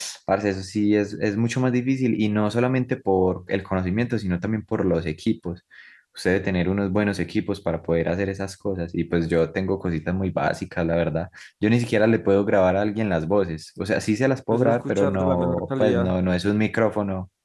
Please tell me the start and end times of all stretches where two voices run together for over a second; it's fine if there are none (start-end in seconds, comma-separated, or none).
14.5-16.1